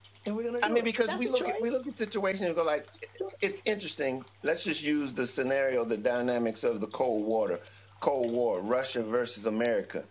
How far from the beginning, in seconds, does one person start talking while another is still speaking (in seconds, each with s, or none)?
0.6 s